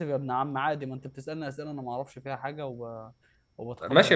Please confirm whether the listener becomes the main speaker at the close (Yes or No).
Yes